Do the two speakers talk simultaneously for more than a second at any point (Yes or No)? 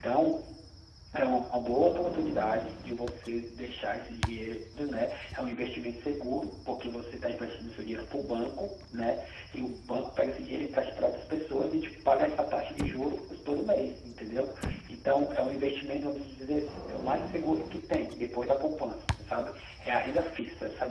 No